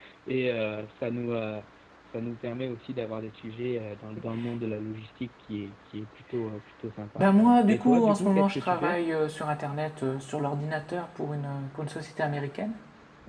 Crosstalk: present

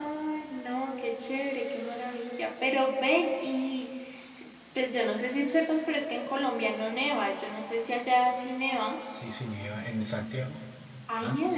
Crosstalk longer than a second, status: none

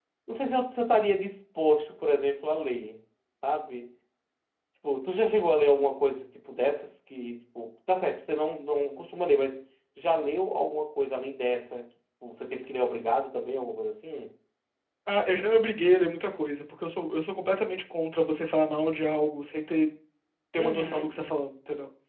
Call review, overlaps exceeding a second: none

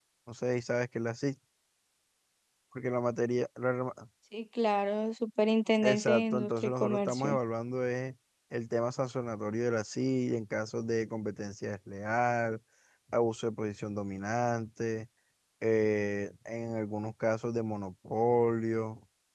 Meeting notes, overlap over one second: present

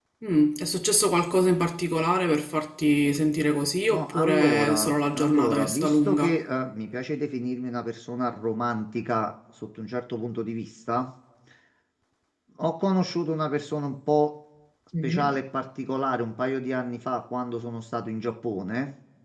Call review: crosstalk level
present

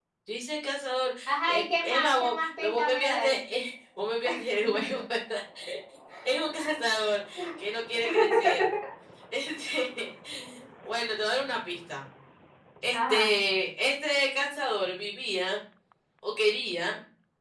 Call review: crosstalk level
present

